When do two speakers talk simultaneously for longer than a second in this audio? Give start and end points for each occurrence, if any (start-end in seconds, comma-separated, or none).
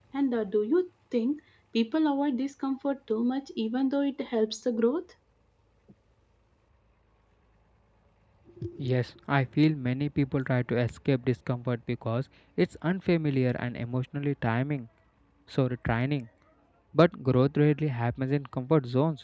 none